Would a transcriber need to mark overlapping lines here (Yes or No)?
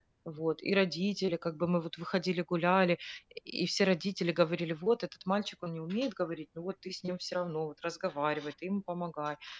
No